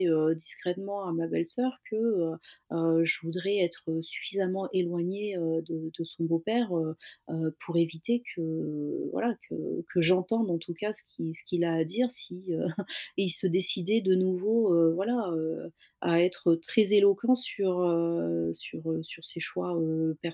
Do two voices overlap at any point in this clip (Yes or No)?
No